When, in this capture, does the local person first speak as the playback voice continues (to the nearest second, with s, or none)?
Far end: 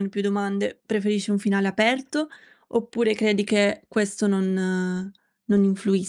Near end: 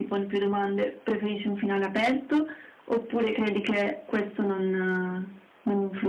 none